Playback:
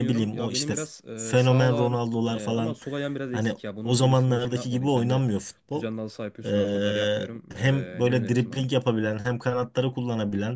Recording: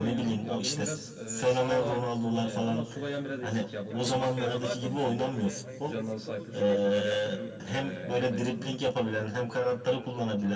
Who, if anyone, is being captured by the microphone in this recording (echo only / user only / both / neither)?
both